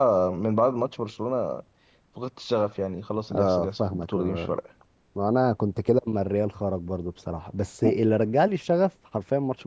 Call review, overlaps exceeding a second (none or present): present